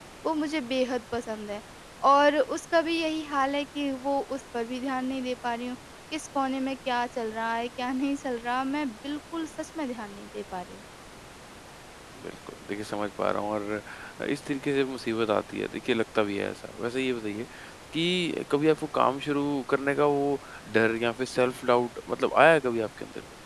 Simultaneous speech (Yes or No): No